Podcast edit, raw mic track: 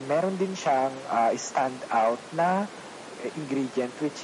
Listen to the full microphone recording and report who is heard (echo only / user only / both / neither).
echo only